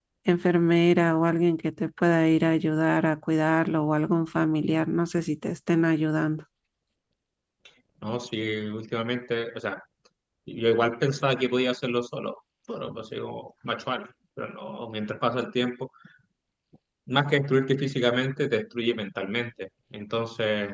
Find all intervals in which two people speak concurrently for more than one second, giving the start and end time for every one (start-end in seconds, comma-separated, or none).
none